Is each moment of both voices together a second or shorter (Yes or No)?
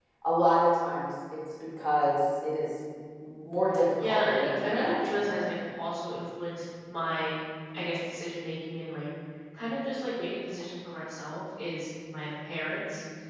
No